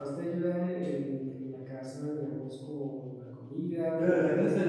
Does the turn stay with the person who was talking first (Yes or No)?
No